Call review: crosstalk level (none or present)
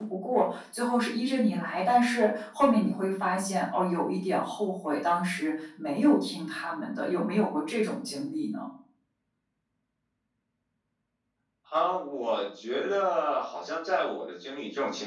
none